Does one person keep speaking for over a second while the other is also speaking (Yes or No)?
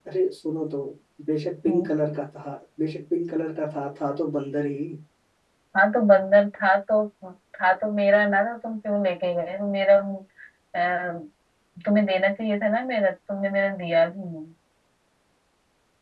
No